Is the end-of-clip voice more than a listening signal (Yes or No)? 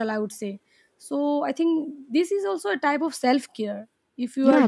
Yes